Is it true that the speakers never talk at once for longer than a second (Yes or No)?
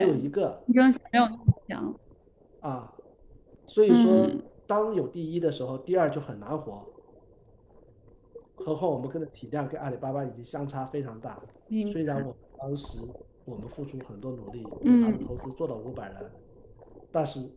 Yes